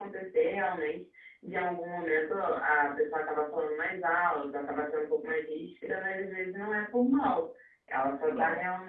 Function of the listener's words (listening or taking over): listening